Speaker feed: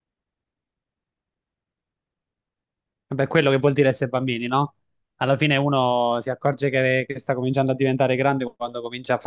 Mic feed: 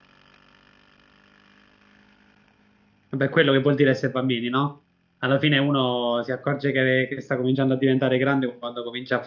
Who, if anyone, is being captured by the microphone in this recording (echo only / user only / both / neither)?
echo only